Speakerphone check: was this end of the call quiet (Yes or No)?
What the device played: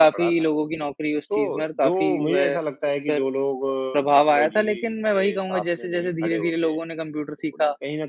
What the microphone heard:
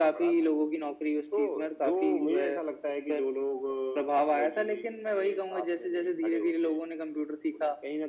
Yes